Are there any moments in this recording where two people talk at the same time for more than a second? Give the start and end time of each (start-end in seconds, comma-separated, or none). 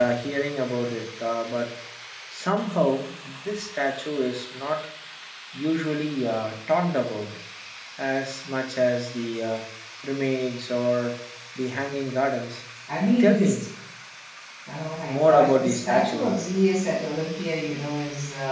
15.0-16.3